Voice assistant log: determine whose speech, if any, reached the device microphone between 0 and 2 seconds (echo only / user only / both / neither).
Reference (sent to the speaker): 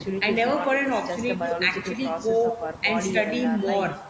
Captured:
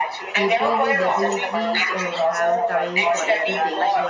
both